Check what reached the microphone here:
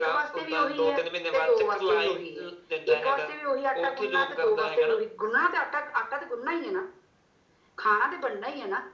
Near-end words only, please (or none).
none